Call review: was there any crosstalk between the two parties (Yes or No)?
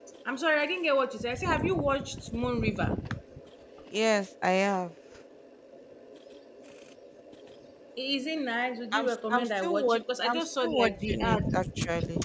Yes